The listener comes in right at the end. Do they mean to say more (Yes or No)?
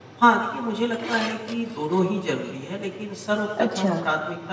No